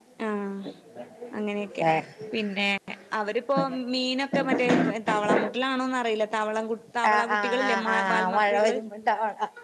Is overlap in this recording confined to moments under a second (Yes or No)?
No